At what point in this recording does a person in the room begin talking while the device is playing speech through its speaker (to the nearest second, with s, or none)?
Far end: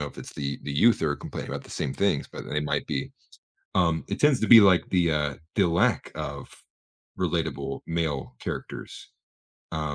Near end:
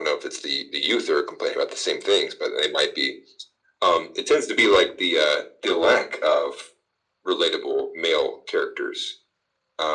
none